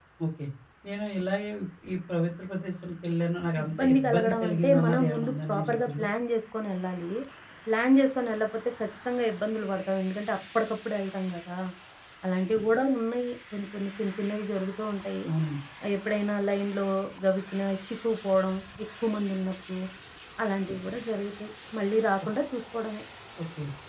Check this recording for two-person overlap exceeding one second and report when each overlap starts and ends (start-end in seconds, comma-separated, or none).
3.6-6.0